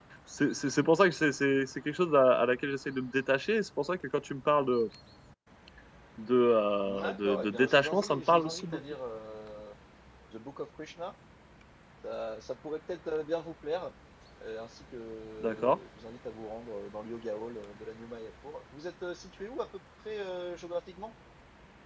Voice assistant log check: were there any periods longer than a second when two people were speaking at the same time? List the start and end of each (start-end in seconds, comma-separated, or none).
6.8-8.8